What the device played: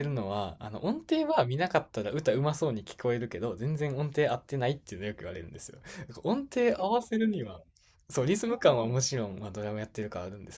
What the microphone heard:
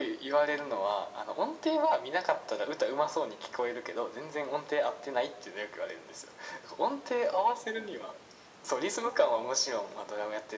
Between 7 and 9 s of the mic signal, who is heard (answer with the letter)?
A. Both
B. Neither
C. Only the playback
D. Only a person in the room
C